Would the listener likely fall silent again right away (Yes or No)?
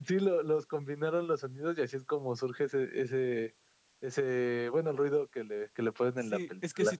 No